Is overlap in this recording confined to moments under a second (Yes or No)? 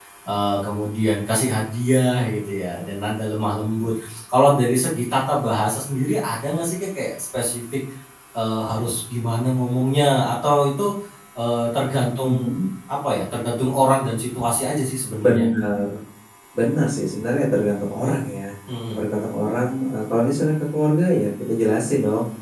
Yes